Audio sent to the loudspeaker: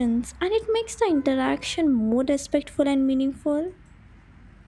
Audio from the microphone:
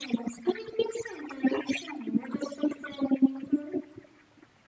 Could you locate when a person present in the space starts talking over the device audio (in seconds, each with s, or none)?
none